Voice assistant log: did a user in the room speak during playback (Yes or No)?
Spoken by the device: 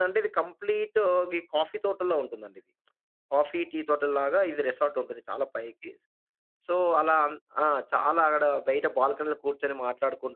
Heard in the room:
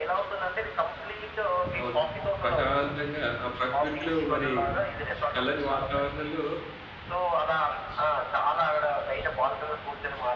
Yes